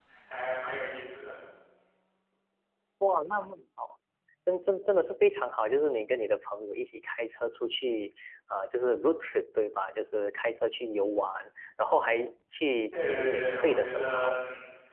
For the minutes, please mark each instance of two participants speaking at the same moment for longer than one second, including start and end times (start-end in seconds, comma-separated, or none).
13.0-14.4